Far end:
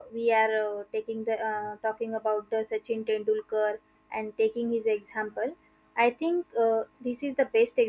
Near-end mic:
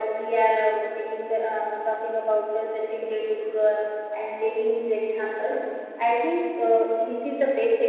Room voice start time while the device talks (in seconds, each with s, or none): none